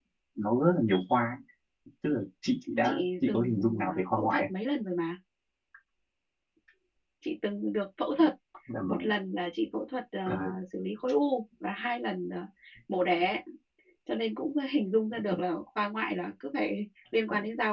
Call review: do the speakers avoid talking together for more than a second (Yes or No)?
No